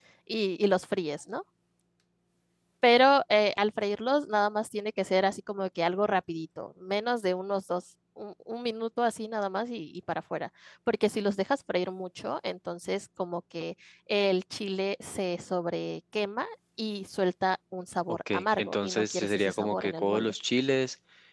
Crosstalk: present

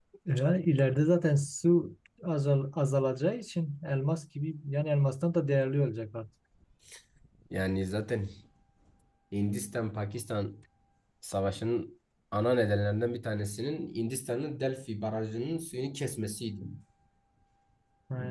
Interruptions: none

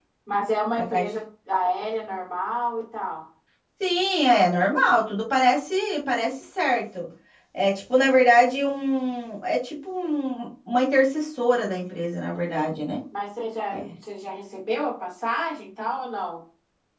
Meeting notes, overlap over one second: none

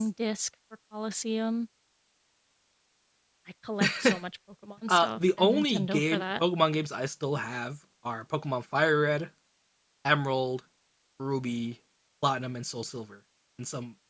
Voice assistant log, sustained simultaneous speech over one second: present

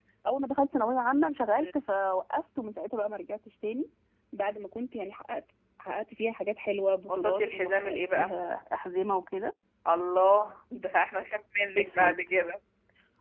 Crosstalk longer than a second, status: present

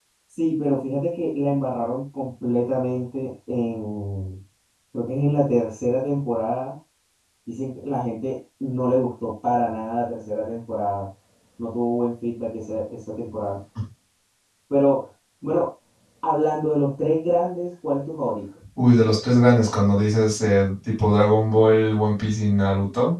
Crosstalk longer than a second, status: none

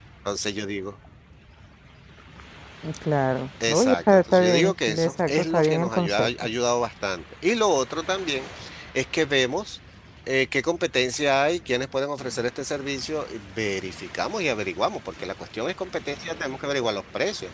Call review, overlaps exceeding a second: present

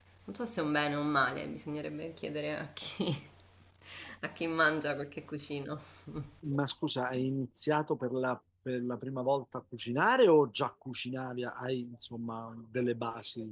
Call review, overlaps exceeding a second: none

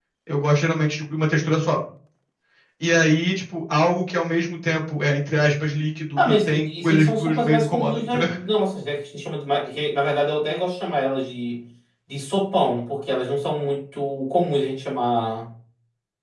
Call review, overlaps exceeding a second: present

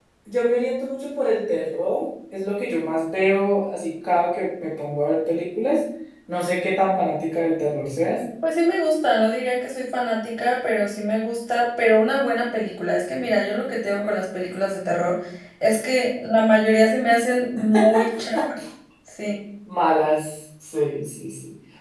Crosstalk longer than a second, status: none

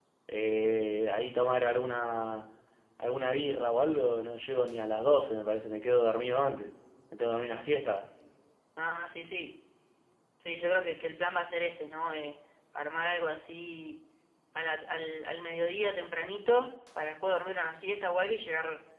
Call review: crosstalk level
none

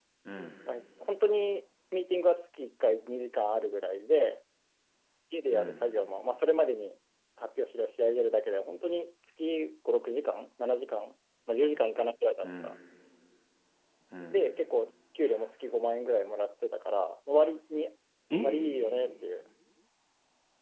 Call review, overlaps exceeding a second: none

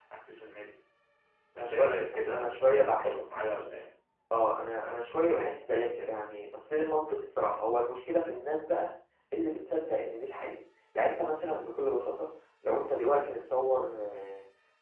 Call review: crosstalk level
present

